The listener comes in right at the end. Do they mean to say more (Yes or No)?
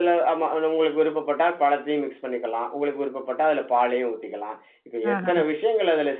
No